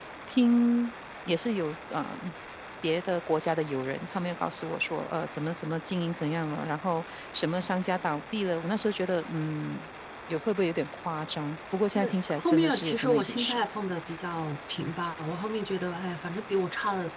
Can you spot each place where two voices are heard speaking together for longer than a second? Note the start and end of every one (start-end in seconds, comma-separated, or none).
12.0-13.6